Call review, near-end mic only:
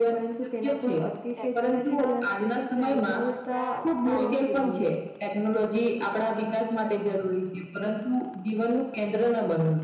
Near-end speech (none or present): present